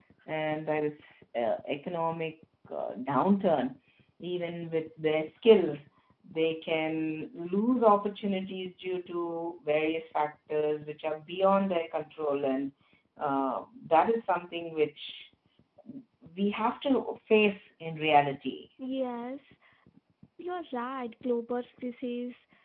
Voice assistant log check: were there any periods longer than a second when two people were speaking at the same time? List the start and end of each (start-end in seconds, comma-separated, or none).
none